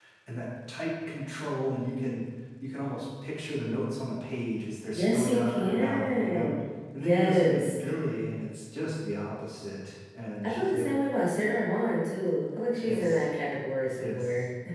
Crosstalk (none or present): present